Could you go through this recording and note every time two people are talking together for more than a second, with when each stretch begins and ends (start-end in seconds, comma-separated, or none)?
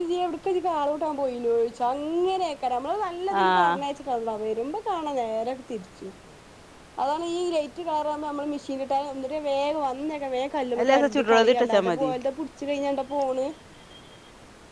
10.8-12.1